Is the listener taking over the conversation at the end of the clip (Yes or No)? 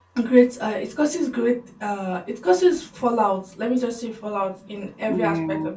No